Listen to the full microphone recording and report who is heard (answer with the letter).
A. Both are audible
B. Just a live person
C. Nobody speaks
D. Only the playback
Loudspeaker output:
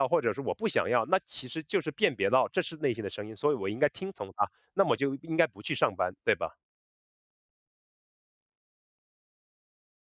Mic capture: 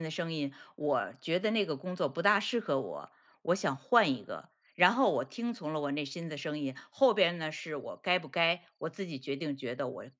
B